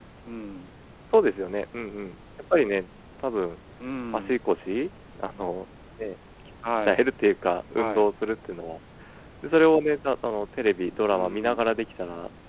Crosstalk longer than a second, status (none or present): none